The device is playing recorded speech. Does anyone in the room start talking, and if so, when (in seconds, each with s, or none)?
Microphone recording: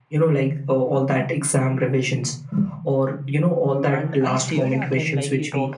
3.9 s